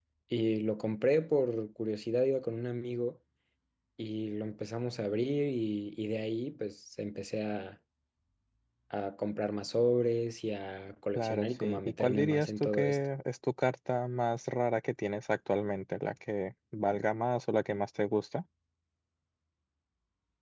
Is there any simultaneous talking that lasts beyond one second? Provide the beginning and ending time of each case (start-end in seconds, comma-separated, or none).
11.2-13.0